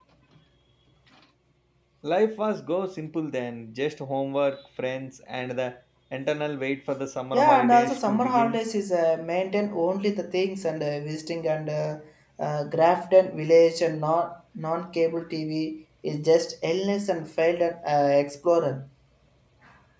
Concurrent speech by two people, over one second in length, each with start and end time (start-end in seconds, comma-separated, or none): 7.3-8.6